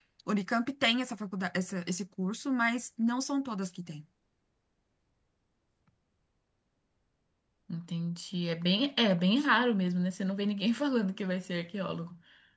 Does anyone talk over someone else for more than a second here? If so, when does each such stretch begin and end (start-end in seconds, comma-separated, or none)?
none